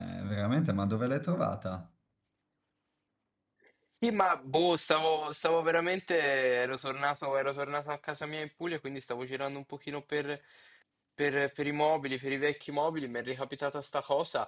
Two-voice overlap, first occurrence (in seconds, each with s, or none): none